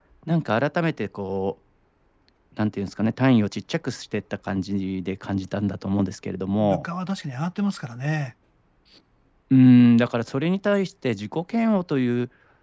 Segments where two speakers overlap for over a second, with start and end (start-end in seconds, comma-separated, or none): none